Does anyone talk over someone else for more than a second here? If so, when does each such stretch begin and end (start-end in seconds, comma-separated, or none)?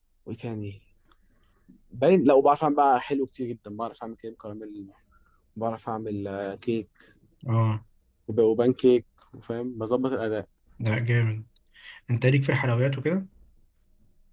none